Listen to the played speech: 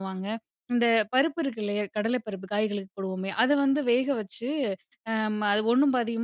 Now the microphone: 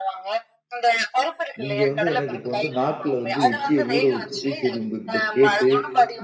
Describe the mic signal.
both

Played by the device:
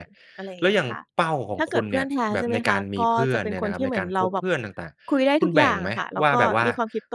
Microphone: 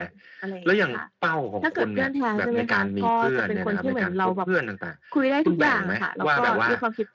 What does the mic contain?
echo only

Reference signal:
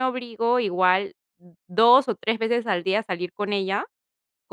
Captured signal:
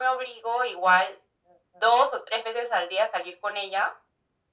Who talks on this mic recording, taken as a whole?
echo only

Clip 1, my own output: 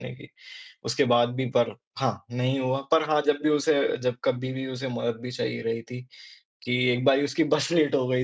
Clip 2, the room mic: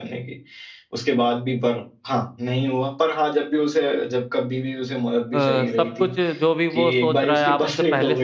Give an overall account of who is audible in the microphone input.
both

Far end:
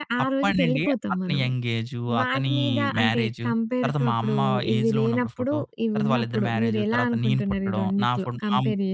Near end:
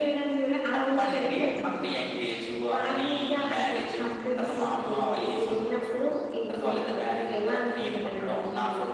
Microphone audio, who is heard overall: echo only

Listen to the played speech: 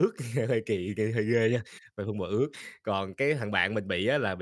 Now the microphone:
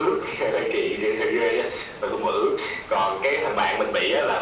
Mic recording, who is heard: echo only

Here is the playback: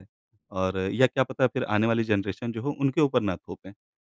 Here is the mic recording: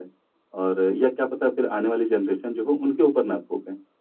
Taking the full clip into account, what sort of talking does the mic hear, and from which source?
echo only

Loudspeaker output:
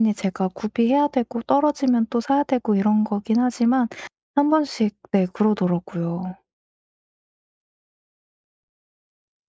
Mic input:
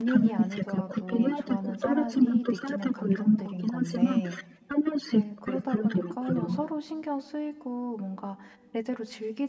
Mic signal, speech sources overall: both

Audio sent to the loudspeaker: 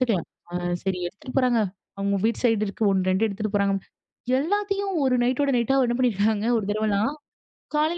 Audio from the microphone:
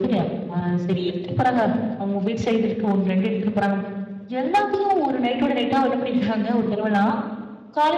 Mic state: echo only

